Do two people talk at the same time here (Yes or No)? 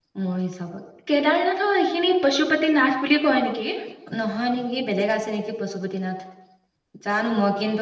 No